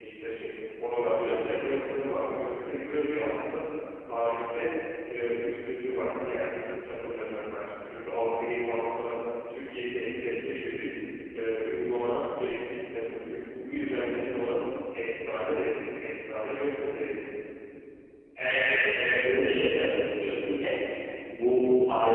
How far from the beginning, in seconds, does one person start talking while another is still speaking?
none

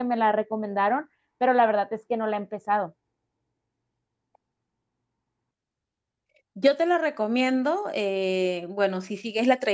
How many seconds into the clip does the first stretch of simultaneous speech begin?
none

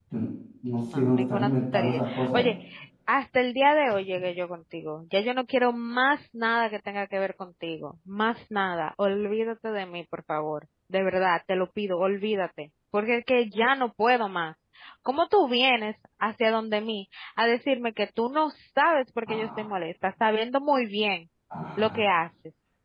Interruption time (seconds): 0.9 s

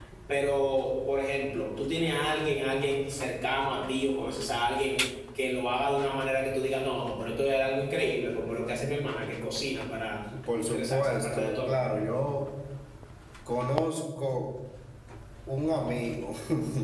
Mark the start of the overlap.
10.6 s

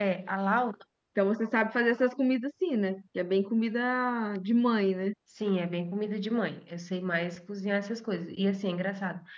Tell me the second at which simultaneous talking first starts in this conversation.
none

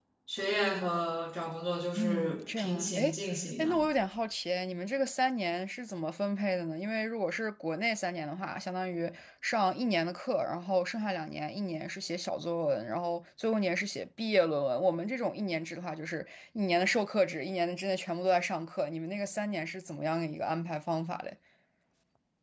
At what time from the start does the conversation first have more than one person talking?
2.0 s

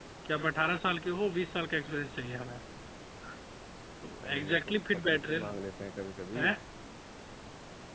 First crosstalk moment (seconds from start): 4.3 s

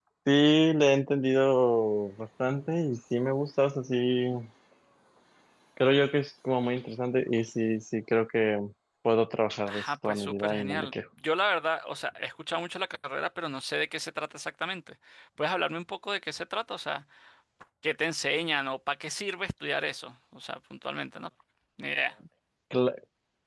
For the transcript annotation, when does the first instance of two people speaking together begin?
9.7 s

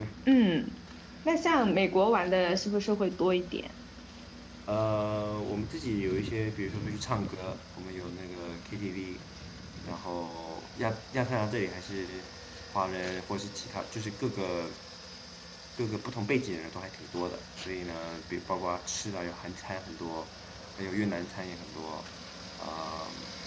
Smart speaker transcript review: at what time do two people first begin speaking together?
none

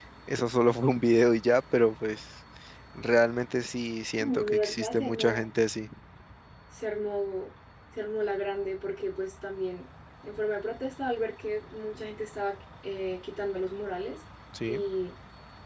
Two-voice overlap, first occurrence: 4.2 s

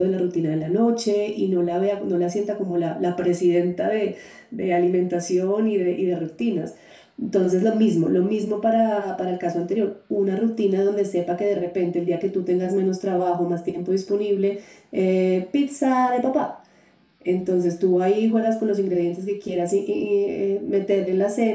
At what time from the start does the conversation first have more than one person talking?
none

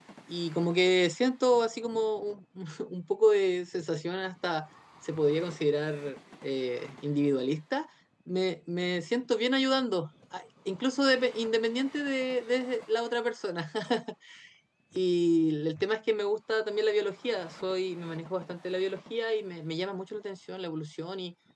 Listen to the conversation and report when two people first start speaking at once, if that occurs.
none

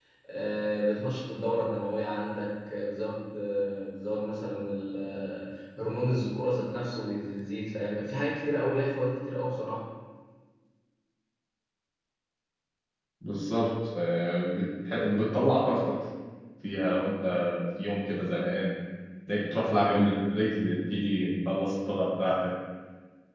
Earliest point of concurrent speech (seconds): none

